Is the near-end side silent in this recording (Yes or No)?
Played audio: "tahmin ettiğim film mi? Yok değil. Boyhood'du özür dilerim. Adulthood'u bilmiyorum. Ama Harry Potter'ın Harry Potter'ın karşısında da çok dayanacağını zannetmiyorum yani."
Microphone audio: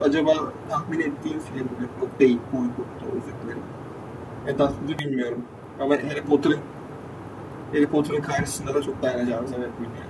Yes